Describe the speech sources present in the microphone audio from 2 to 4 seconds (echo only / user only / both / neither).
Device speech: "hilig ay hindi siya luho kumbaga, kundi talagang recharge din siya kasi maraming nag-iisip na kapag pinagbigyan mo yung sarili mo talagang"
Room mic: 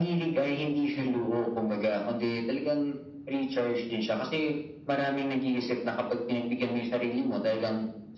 echo only